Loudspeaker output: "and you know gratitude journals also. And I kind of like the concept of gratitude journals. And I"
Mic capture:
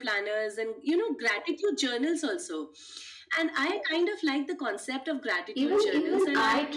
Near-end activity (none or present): present